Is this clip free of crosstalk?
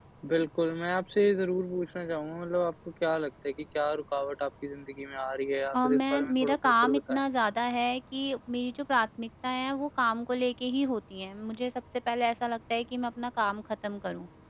No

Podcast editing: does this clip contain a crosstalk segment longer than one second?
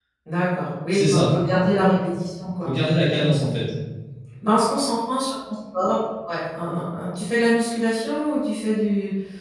No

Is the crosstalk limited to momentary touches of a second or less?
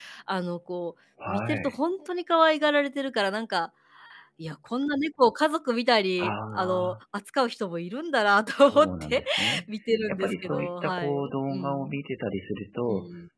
No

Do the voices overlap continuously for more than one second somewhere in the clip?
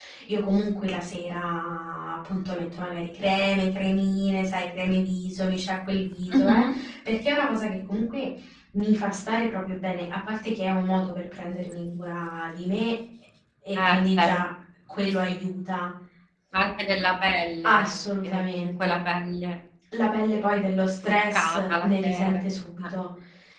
Yes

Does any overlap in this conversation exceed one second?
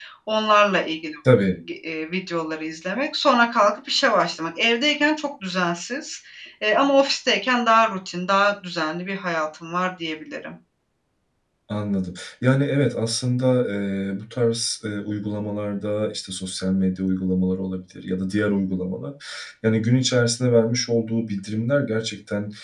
No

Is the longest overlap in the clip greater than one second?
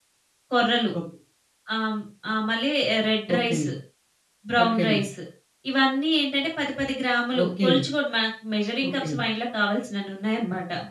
No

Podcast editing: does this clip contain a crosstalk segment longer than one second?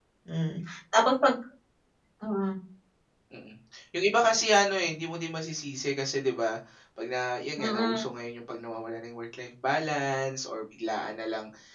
No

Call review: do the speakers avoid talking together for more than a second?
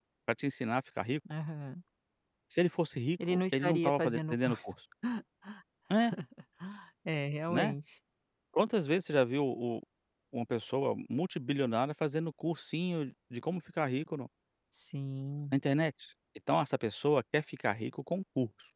No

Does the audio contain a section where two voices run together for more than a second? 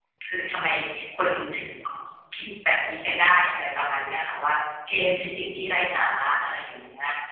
No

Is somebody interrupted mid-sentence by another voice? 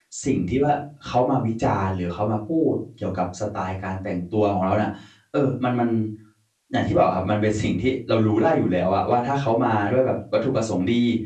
No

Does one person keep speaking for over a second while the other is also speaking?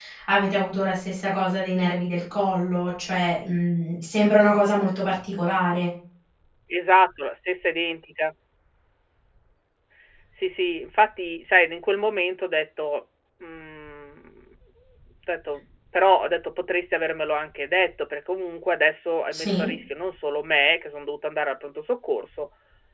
No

